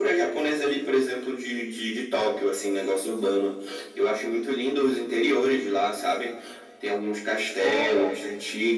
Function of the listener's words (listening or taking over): listening